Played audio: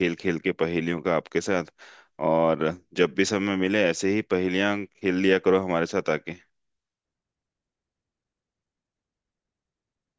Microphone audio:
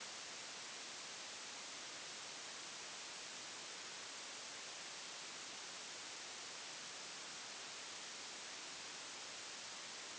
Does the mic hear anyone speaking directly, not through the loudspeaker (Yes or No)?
No